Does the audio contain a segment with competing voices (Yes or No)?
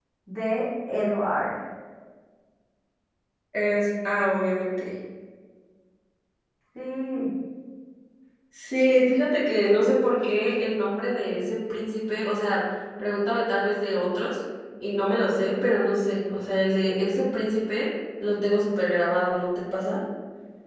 No